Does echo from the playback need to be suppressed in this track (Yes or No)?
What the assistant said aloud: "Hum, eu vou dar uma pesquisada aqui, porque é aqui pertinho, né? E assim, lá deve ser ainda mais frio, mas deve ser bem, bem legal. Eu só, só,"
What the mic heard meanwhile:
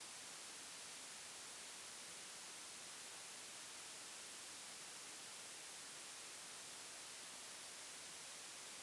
No